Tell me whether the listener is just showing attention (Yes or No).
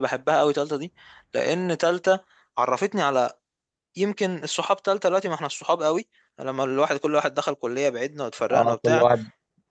No